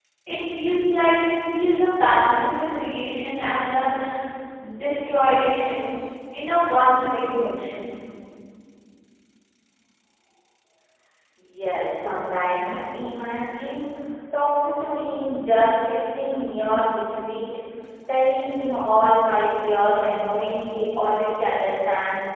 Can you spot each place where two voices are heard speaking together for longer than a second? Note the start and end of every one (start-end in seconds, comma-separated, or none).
none